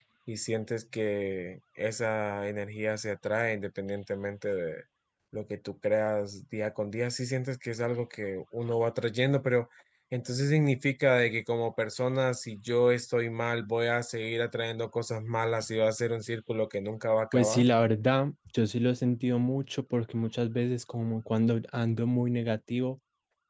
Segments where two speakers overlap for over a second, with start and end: none

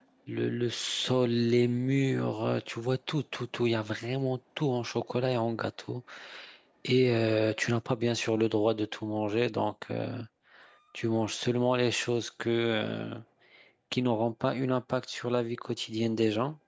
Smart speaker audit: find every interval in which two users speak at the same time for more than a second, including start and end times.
none

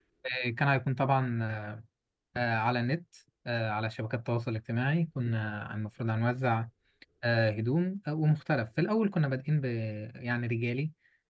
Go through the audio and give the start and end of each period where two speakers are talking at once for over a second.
none

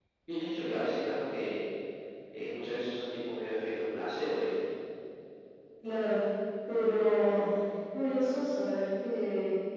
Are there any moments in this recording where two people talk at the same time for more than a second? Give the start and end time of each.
none

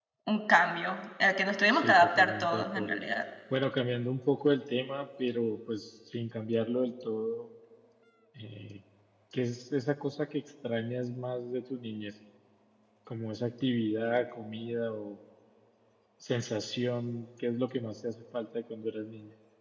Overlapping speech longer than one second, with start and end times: 1.7-3.0

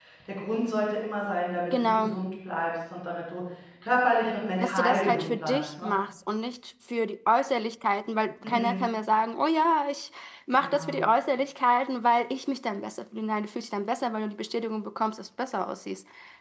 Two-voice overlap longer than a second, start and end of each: 4.6-5.9

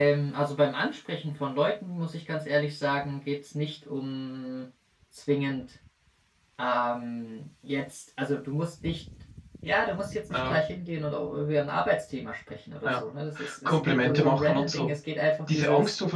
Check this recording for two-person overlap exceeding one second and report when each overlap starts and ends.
13.6-14.9

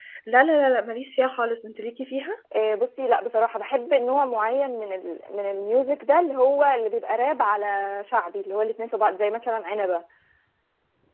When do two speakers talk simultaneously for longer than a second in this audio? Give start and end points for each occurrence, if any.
none

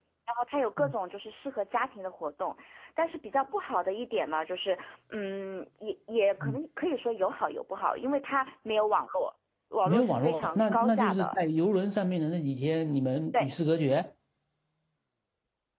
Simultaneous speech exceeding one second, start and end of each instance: 9.8-11.4

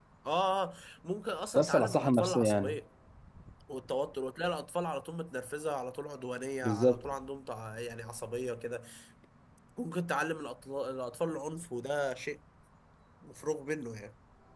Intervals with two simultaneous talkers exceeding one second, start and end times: 1.6-2.8

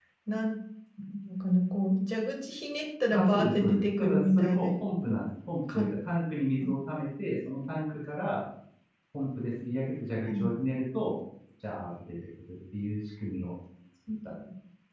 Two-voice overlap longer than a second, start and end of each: 3.1-4.7

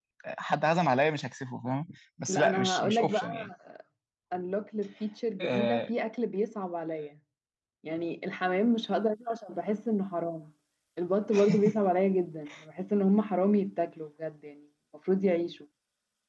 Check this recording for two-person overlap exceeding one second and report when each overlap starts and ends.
2.3-3.5

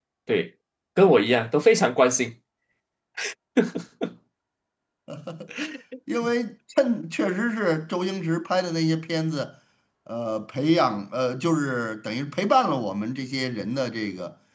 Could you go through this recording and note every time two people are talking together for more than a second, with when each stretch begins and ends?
none

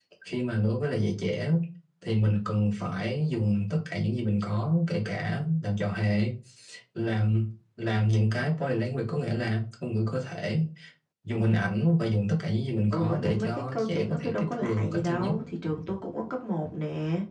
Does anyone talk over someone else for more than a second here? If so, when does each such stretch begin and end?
12.9-15.3

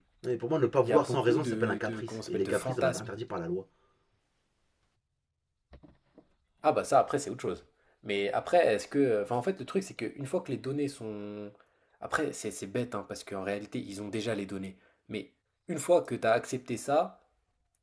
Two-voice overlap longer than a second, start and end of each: 0.8-3.0

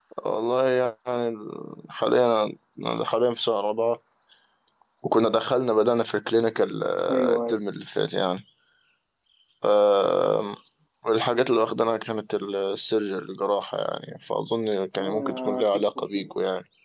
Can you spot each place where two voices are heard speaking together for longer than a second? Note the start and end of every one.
15.0-16.3

